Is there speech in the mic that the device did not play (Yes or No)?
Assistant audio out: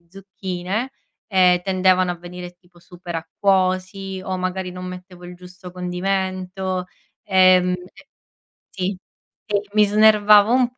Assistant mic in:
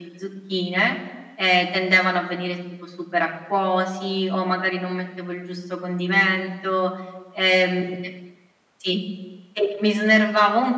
No